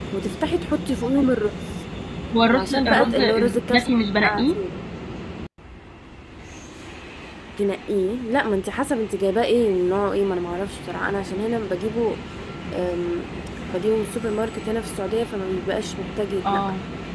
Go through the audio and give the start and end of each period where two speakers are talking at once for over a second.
2.5-3.9

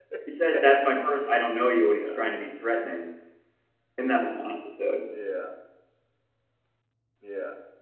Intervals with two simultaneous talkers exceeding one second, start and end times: none

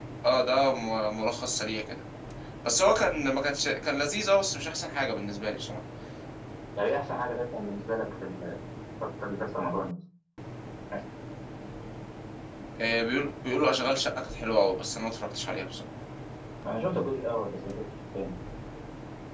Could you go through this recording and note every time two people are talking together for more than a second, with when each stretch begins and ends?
none

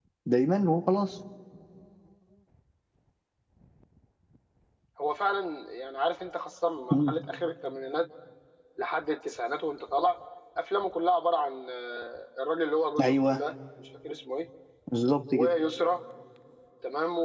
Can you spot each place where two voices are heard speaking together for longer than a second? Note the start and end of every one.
none

